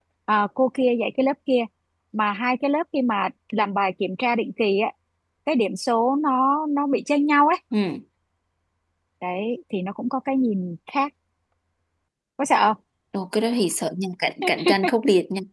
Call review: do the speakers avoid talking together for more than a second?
Yes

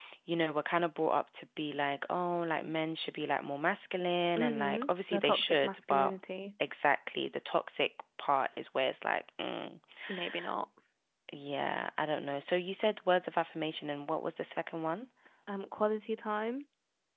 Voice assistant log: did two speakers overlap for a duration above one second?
Yes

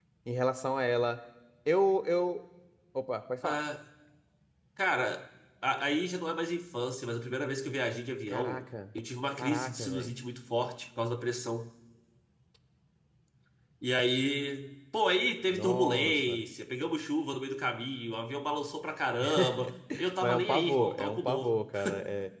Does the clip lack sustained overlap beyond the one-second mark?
No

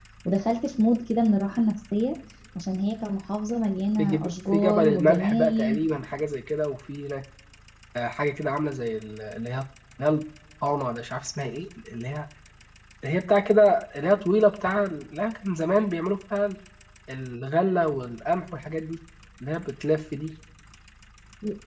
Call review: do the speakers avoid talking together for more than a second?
No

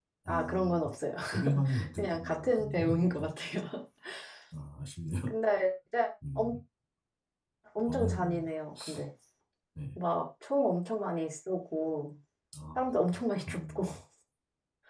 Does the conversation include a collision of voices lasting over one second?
Yes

